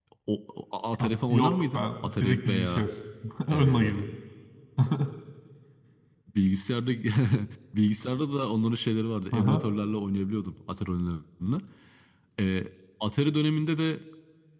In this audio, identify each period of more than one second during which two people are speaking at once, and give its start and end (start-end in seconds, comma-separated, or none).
1.0-2.9